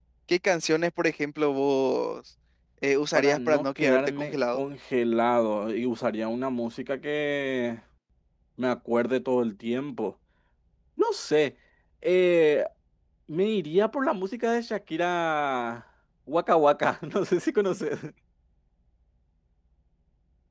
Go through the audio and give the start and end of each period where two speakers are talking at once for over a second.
3.1-4.6

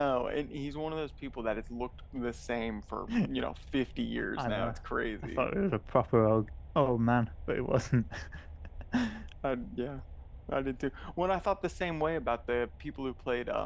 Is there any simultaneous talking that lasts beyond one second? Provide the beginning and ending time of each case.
none

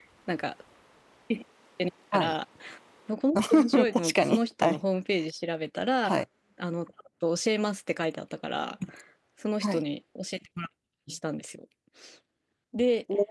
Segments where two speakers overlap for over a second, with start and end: 3.4-4.8

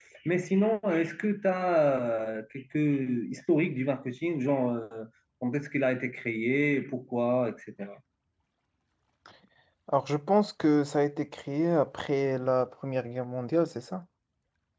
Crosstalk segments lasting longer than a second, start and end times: none

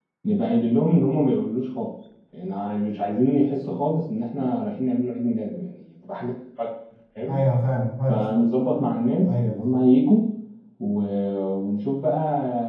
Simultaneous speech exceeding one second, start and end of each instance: none

